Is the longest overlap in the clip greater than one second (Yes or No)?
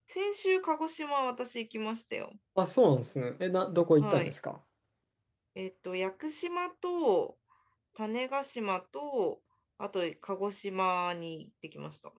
No